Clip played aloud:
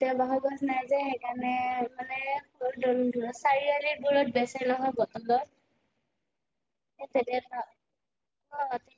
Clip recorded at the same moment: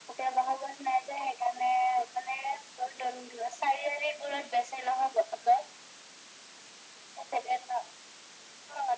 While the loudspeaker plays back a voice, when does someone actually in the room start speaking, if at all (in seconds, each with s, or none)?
none